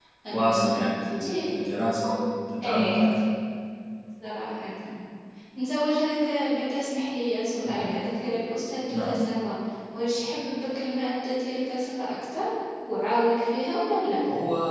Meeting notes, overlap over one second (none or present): present